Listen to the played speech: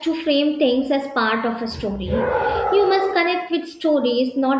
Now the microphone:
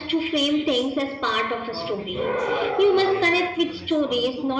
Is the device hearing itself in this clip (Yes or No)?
Yes